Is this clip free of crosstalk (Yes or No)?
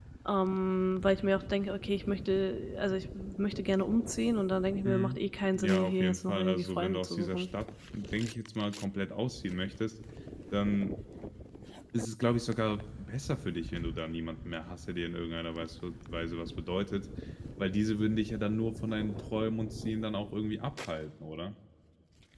No